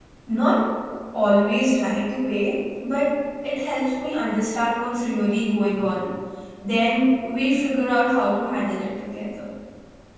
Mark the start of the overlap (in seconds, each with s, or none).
none